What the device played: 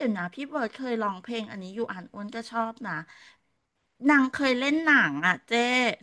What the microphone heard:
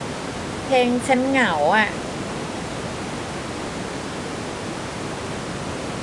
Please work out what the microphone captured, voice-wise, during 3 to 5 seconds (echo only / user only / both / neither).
neither